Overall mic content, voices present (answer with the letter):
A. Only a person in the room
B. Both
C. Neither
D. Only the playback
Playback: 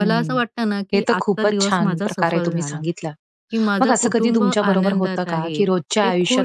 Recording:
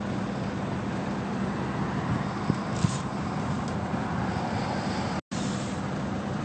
C